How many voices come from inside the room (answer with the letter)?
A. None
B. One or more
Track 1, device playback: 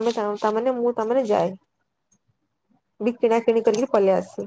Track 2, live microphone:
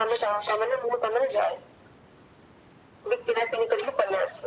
A